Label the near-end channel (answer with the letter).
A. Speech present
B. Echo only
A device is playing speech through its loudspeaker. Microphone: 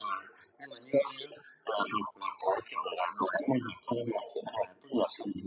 B